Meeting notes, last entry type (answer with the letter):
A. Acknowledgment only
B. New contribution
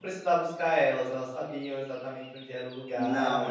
B